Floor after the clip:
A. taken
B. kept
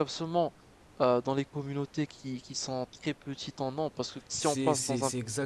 A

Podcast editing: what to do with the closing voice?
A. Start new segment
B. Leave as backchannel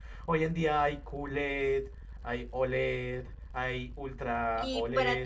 A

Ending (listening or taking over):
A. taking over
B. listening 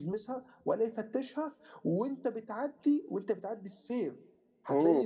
B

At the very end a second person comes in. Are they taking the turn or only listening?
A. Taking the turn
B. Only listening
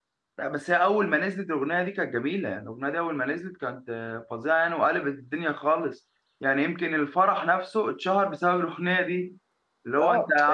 A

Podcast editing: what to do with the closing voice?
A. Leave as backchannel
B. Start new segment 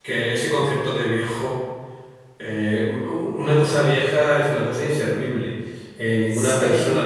A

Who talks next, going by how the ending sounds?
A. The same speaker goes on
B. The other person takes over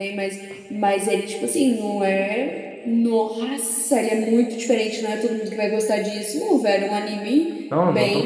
B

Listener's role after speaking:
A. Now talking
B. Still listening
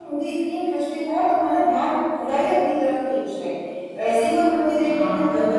A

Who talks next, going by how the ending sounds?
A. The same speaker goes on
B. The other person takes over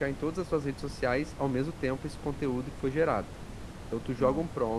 A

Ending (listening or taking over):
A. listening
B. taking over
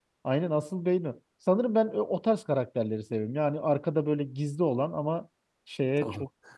B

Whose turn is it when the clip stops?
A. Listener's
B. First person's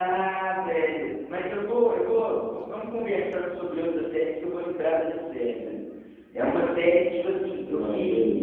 B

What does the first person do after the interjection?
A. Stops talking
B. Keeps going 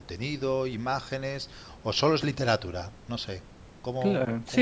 A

